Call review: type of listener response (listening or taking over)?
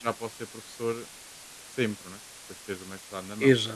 taking over